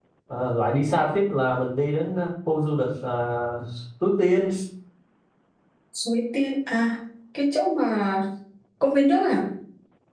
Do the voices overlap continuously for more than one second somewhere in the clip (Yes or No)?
No